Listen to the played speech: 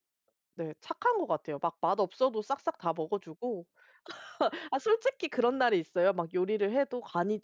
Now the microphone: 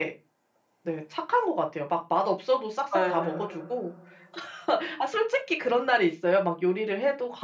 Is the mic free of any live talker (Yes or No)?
No